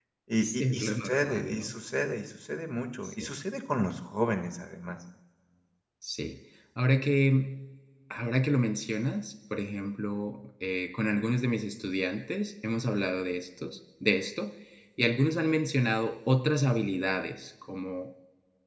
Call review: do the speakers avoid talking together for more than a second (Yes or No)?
No